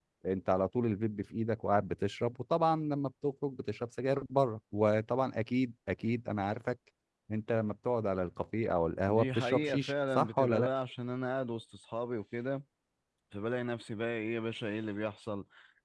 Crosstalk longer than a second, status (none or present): present